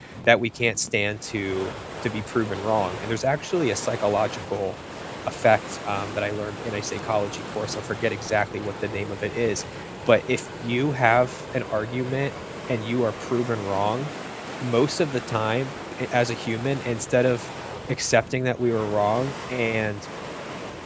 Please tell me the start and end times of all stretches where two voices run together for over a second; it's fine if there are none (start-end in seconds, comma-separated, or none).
none